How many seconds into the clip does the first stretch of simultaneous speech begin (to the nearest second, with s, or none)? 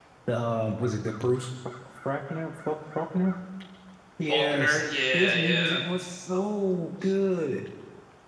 4 s